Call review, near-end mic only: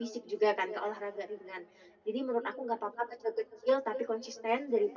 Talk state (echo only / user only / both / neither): echo only